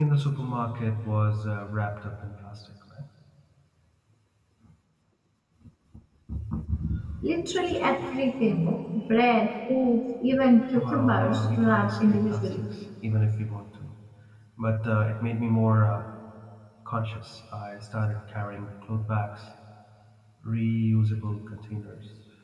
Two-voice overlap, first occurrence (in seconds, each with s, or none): 10.8 s